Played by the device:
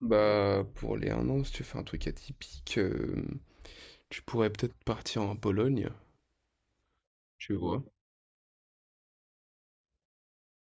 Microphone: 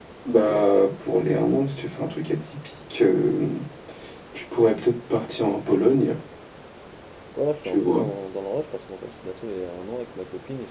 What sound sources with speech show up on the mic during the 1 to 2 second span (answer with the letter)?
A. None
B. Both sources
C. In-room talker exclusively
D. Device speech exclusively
D